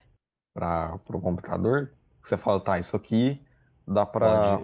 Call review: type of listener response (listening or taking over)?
listening